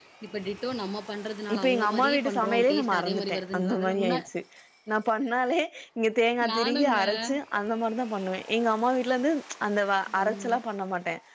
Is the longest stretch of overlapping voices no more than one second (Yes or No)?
No